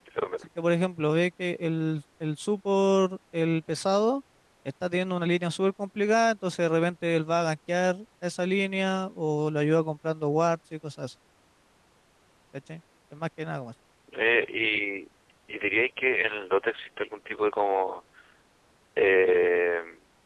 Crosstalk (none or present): none